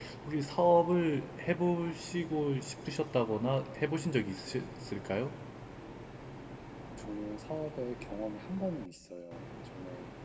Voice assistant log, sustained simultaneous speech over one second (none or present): none